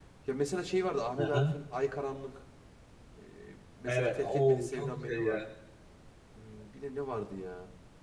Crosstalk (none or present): present